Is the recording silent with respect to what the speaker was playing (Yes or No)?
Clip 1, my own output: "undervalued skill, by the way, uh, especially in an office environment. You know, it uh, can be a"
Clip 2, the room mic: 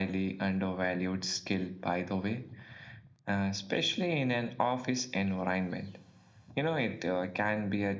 No